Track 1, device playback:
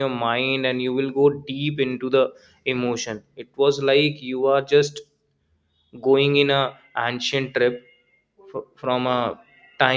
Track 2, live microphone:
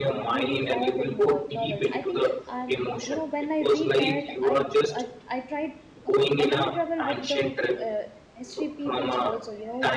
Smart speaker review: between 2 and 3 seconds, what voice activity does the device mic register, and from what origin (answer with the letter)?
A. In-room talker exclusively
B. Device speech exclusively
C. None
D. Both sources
D